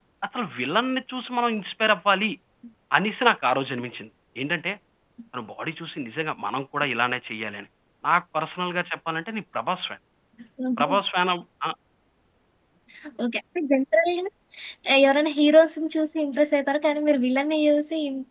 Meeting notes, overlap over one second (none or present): none